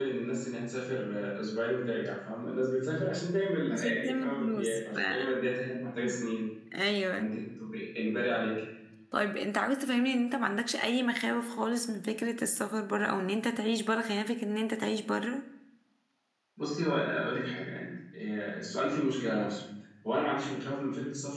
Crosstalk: present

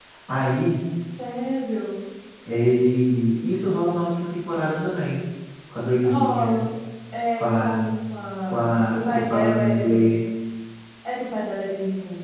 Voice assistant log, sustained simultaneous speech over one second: present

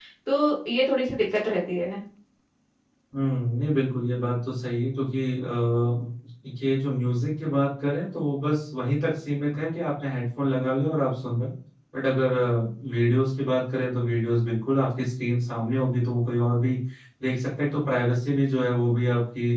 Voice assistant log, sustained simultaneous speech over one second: none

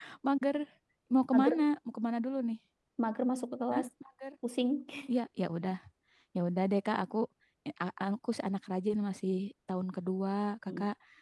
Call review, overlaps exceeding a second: none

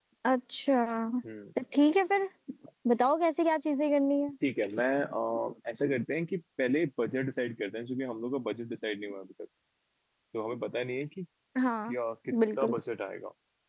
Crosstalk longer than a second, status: none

